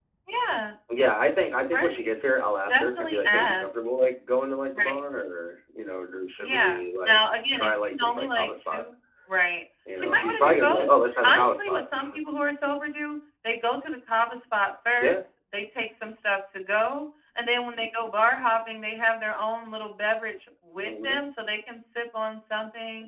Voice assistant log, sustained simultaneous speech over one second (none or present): present